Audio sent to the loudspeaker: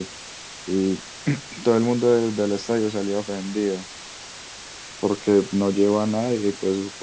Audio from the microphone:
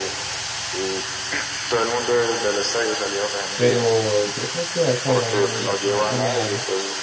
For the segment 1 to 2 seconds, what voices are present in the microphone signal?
echo only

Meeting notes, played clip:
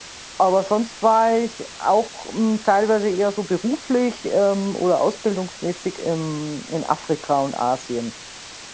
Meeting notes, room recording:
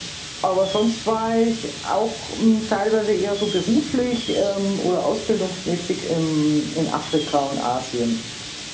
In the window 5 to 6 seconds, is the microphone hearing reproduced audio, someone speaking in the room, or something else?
echo only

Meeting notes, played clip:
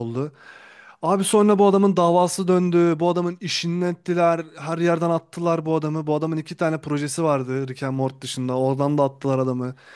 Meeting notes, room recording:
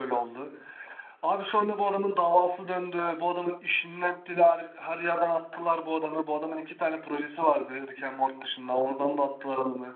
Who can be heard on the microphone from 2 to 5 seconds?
echo only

